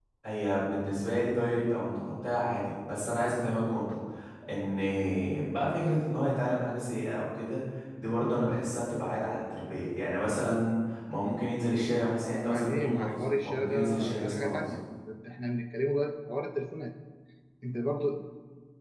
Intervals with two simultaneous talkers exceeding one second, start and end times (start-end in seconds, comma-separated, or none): 12.4-14.7